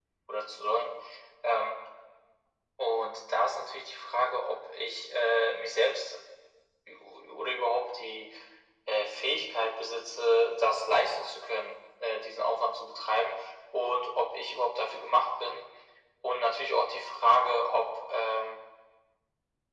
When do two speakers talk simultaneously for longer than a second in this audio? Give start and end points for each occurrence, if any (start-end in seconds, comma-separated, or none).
none